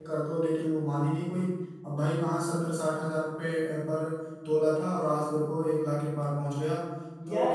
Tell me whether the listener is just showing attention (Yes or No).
No